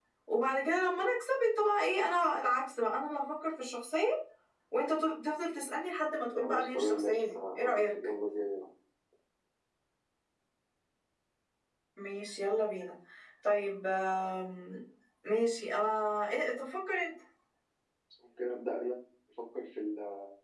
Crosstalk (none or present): present